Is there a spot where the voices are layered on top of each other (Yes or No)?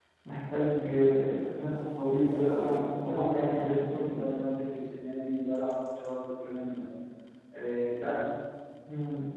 Yes